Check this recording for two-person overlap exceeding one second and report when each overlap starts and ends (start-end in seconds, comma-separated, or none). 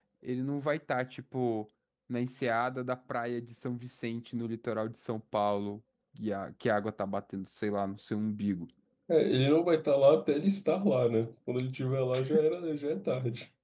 none